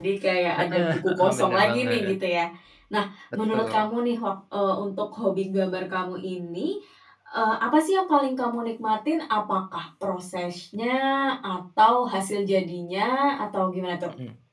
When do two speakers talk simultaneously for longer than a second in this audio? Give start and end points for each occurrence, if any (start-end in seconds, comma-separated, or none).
0.7-2.1